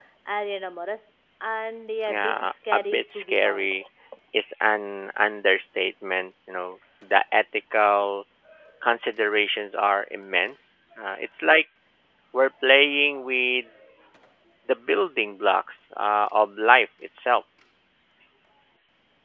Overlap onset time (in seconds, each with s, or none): 2.1 s